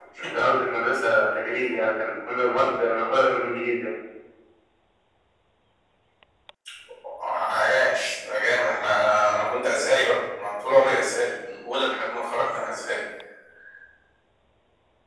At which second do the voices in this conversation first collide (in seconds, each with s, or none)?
none